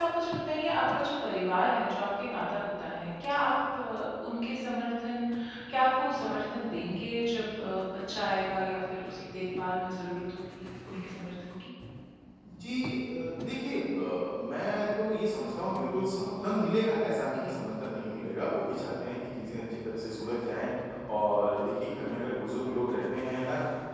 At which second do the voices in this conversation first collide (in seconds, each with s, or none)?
none